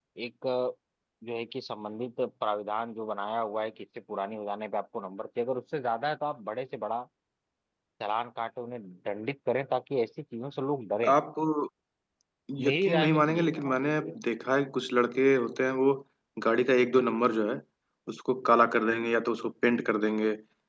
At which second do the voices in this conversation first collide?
12.7 s

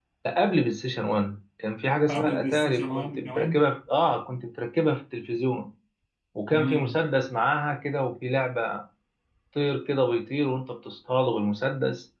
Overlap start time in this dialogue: 2.1 s

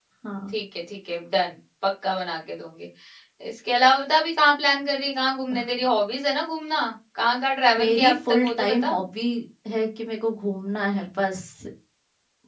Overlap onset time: 7.8 s

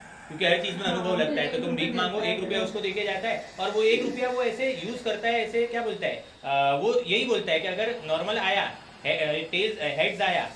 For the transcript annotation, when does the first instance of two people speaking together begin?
0.7 s

